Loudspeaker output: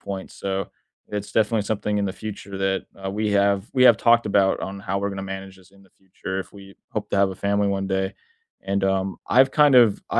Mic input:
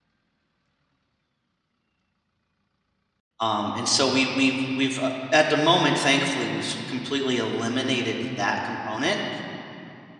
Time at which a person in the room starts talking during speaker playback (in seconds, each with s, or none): 3.4 s